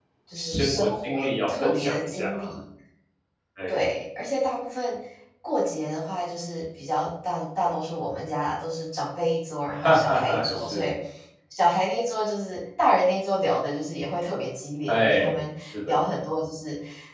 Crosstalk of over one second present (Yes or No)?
Yes